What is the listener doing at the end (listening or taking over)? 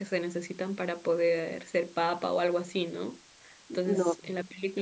listening